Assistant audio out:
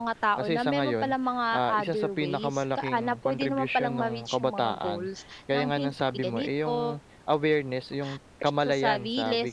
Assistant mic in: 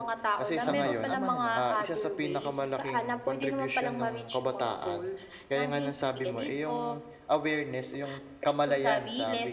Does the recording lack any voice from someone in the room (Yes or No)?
No